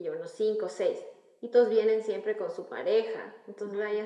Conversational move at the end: listening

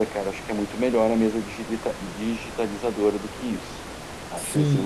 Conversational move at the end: taking over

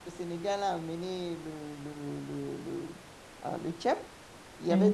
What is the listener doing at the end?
listening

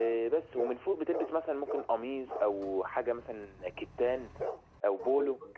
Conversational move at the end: listening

